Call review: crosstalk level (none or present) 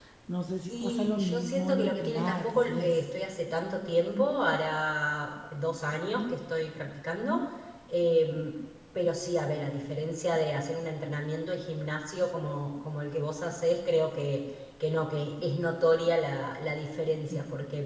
present